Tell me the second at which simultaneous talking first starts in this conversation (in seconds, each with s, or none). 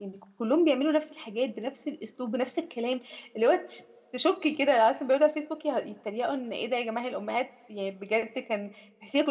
none